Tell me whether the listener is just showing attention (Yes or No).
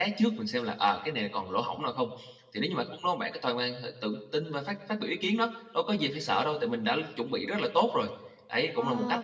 No